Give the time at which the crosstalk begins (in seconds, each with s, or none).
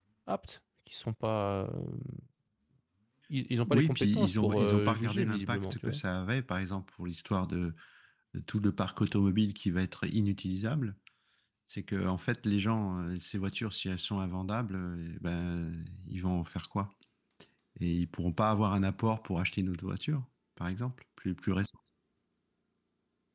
3.6 s